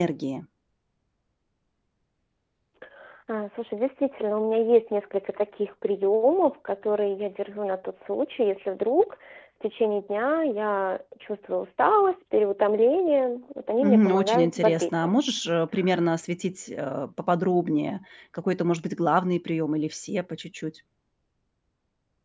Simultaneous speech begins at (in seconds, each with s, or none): 13.8 s